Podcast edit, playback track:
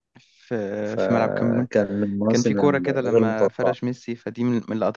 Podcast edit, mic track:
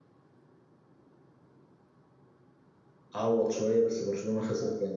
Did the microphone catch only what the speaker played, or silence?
No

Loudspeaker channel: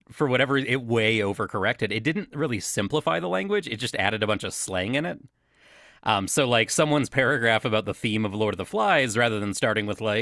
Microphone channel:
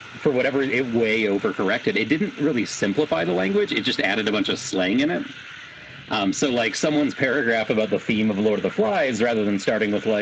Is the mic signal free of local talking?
Yes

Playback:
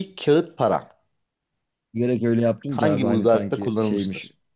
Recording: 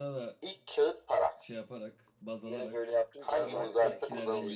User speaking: Yes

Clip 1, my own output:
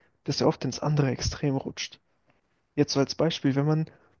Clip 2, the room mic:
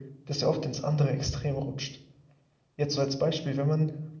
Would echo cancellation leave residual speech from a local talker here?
No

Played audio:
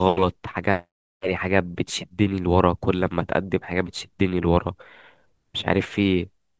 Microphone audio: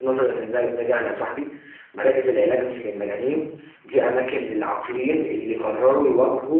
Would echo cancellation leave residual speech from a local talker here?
Yes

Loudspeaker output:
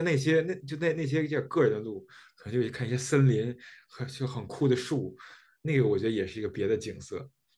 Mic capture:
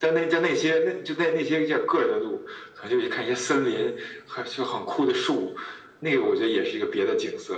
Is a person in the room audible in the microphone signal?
No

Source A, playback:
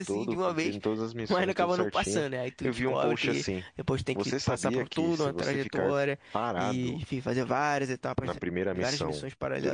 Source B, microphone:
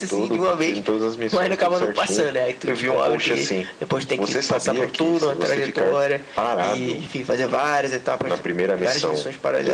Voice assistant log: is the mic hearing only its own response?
Yes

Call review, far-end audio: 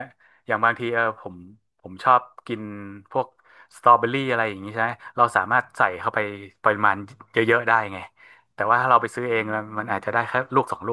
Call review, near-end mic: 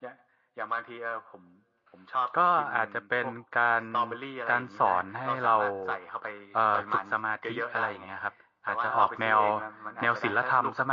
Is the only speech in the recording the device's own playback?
No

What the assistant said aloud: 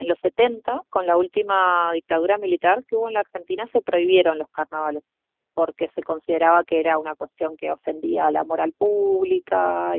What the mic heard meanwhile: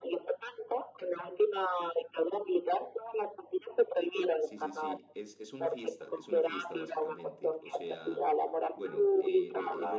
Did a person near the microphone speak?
Yes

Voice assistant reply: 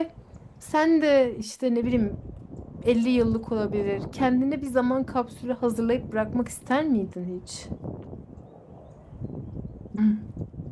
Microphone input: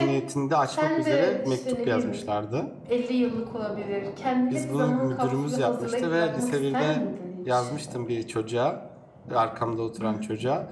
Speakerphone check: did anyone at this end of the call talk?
Yes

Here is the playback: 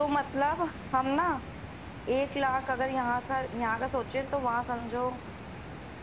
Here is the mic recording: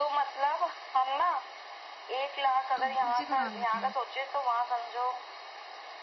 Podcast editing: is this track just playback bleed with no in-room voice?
No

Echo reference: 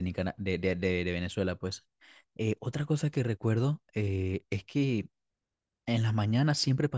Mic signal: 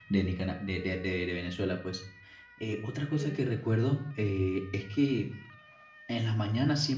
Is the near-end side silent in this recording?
No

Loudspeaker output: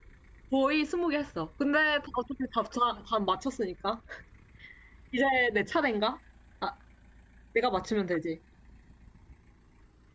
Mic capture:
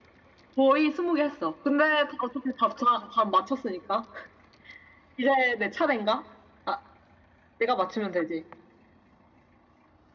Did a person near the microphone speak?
No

